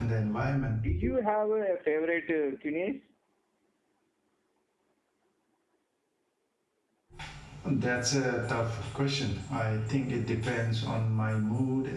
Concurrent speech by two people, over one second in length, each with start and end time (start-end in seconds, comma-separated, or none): none